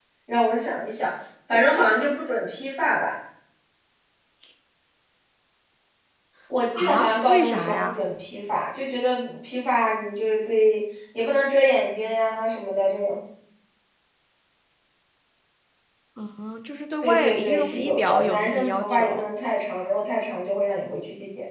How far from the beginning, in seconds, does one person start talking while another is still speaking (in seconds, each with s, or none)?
6.8 s